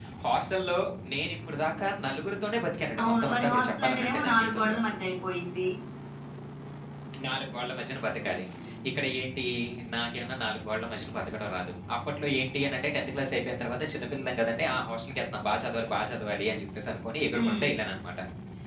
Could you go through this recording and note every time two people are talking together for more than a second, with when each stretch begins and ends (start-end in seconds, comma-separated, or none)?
3.0-4.8